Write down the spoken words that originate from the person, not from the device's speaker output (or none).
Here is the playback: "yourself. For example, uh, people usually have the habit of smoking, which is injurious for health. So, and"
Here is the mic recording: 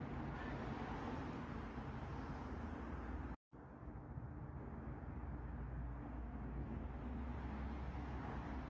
none